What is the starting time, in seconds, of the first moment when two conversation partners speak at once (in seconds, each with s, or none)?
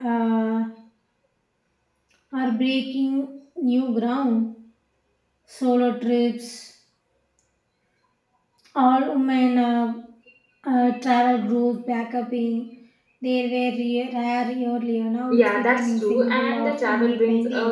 15.3 s